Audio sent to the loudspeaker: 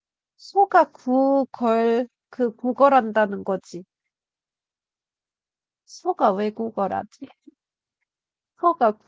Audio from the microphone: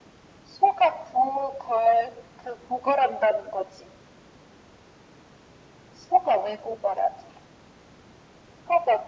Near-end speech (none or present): none